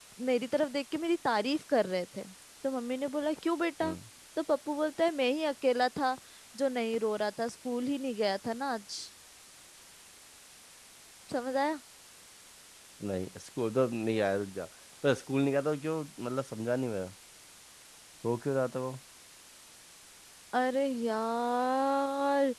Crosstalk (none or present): none